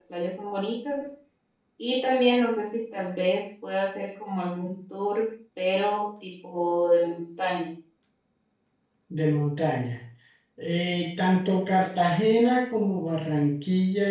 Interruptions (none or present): none